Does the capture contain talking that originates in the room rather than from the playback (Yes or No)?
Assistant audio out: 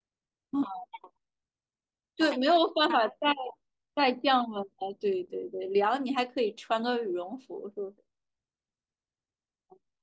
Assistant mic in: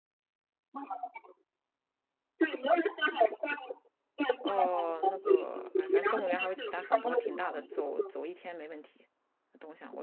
Yes